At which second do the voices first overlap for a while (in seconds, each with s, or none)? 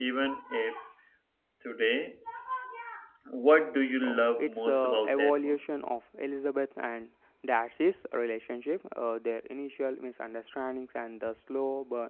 4.0 s